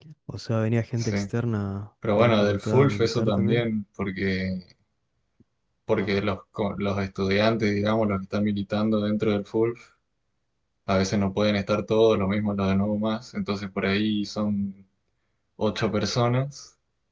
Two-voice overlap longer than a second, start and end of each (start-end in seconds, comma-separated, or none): 2.2-3.7